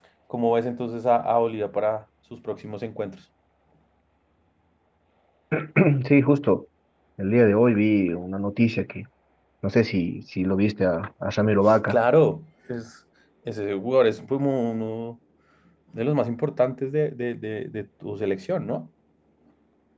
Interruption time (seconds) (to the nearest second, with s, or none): none